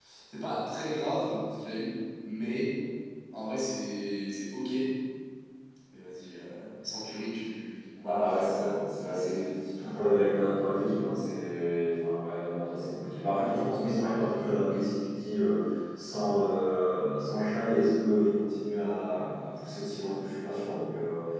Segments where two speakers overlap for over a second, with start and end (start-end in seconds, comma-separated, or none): none